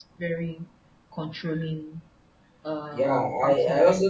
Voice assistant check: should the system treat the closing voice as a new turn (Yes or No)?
Yes